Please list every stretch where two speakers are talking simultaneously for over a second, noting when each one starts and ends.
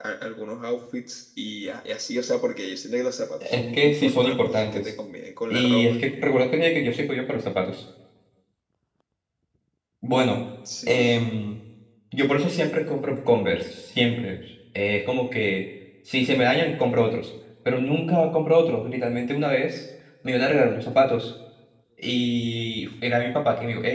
3.4-4.9

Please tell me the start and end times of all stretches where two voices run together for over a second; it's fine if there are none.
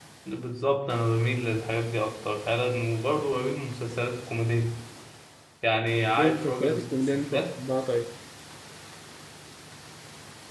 6.2-7.5

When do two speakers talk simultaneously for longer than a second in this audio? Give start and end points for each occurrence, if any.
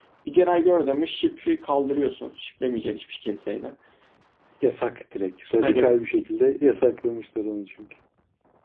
none

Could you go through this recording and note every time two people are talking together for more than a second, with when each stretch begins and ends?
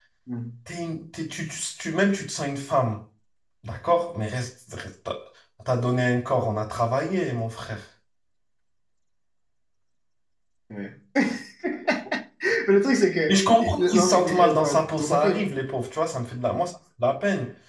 13.3-15.3

